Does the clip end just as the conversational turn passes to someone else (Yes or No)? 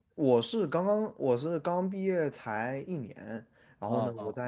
No